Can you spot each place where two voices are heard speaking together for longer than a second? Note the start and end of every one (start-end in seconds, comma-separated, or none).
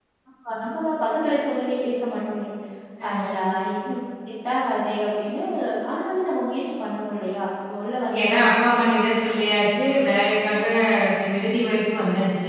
none